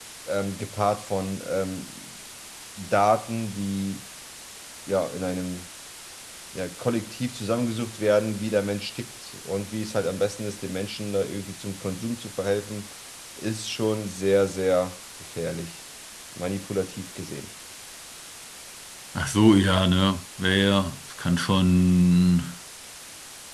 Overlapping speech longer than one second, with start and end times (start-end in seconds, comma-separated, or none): none